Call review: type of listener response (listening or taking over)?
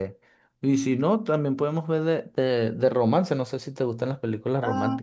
taking over